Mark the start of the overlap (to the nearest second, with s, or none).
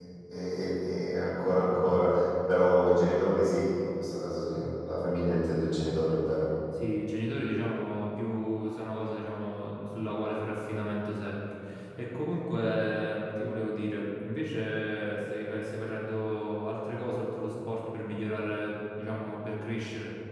none